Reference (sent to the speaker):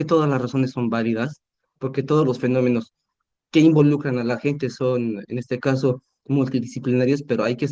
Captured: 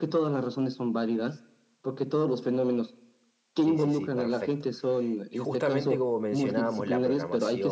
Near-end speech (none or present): present